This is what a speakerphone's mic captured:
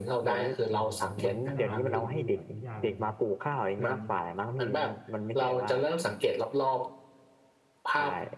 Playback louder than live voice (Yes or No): Yes